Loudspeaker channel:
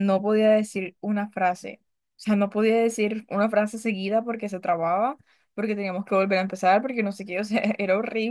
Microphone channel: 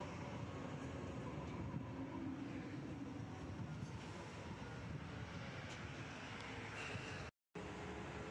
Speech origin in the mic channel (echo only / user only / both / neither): neither